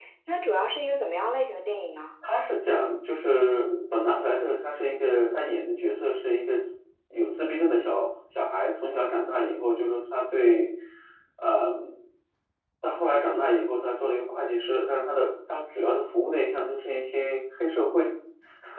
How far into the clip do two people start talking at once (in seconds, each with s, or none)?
none